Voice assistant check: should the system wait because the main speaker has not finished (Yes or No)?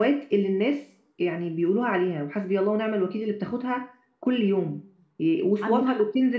Yes